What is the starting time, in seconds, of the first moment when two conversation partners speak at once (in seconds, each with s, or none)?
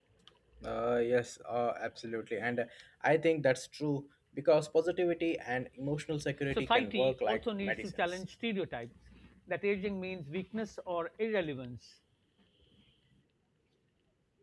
6.5 s